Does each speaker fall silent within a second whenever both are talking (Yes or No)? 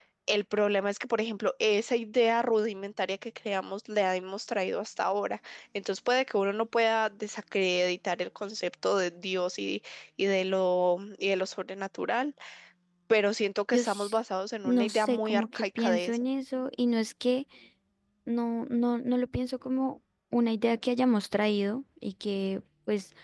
No